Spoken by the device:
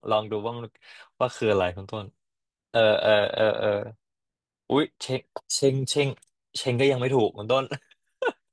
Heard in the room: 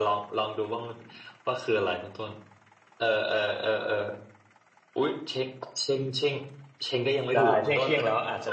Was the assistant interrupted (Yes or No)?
Yes